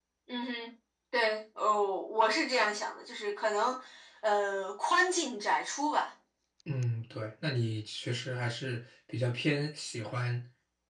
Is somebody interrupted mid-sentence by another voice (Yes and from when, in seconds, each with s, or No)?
No